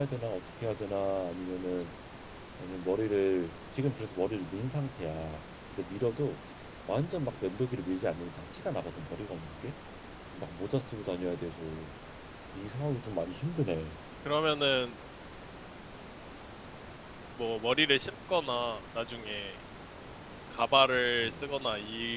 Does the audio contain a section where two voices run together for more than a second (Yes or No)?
No